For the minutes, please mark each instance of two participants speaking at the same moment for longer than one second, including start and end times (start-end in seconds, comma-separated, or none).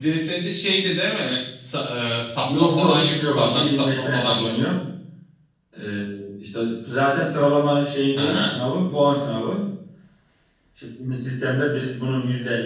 2.4-4.5